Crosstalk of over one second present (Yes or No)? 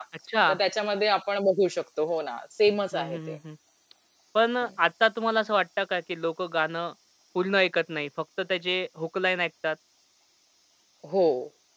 No